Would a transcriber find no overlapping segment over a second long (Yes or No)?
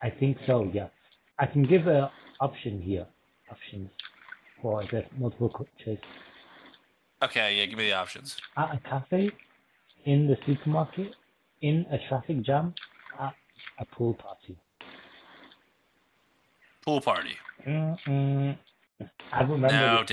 Yes